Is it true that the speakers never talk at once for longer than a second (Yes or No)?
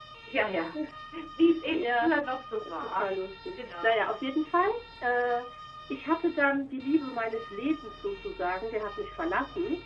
Yes